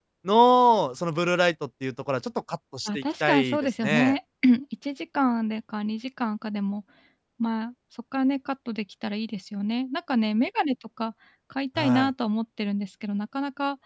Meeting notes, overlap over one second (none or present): present